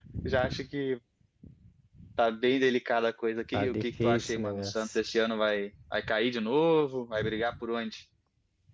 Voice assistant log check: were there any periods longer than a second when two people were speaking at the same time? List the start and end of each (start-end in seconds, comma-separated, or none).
3.5-5.0